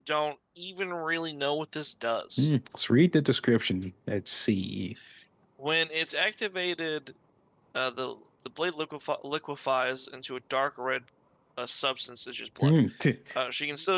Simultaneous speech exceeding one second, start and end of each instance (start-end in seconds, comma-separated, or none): none